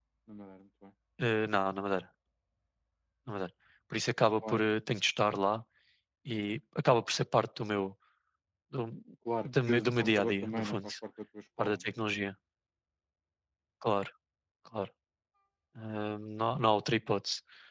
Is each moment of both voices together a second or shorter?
No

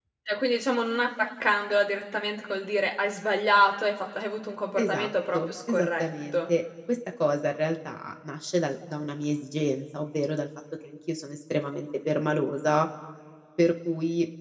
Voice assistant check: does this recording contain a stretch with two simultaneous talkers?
Yes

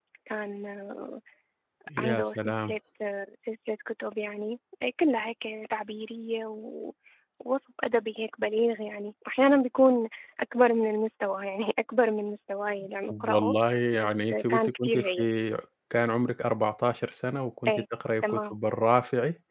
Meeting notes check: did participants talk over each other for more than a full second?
Yes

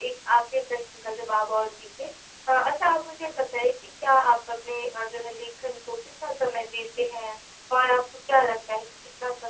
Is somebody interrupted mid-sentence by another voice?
No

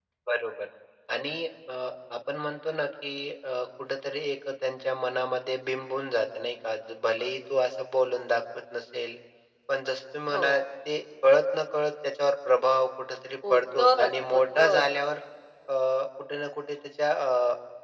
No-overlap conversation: No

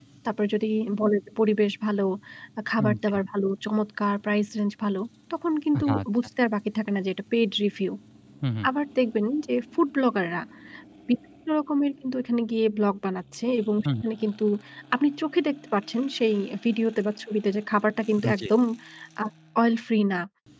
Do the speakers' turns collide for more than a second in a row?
No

